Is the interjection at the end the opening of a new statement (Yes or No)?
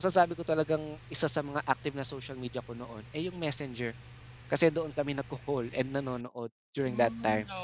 Yes